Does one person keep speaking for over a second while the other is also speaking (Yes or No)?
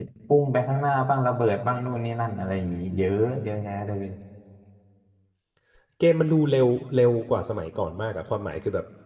No